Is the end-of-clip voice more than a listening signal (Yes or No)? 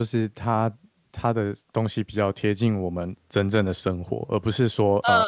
No